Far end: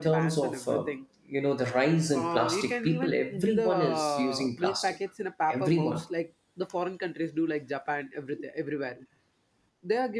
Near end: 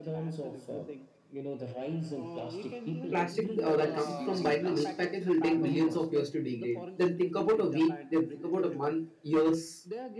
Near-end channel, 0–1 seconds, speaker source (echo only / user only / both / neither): echo only